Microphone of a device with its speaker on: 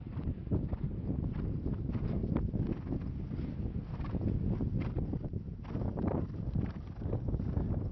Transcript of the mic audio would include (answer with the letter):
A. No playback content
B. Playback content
A